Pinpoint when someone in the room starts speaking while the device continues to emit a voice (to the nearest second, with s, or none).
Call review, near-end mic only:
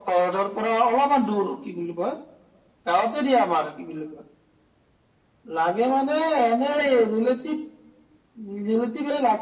none